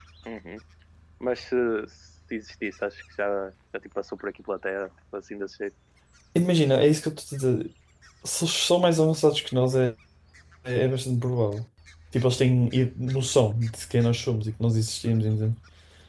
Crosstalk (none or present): none